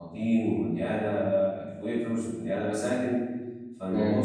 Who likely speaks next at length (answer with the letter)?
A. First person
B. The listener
A